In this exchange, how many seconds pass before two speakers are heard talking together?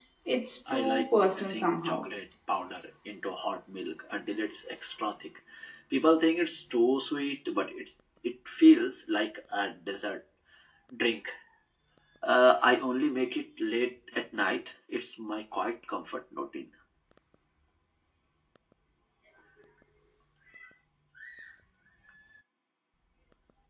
1 s

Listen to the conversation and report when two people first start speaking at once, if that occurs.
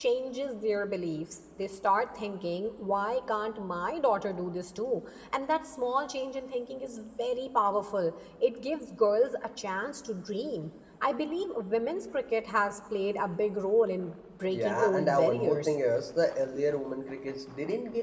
14 s

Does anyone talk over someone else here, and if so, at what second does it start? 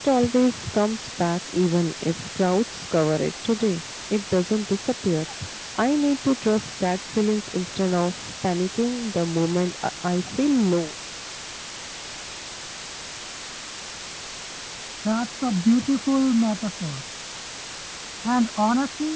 none

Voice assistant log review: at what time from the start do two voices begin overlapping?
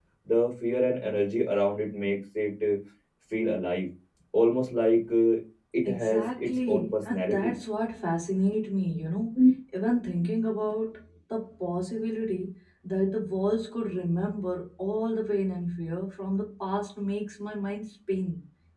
6 s

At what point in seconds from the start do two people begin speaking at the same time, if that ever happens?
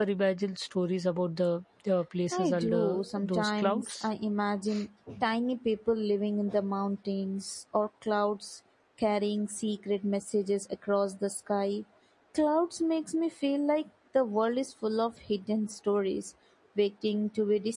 2 s

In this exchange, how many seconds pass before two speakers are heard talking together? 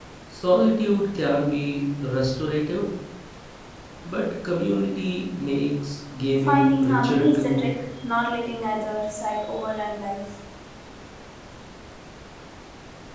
6 s

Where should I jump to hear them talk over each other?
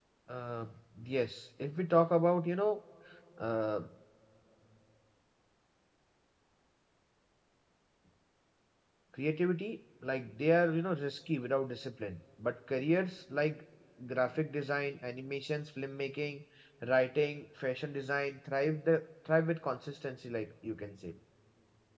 none

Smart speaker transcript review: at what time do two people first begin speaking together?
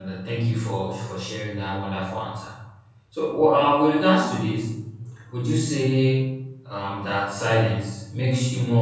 none

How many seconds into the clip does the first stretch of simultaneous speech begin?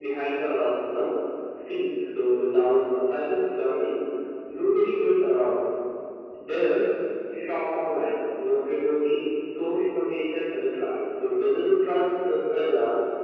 none

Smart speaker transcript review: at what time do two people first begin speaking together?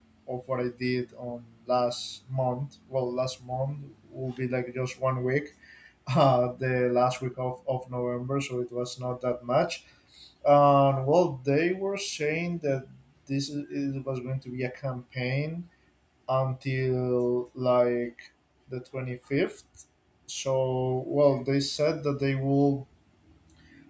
none

